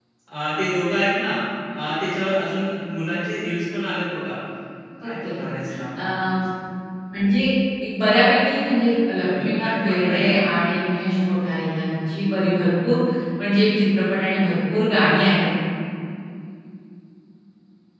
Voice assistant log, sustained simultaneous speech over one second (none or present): present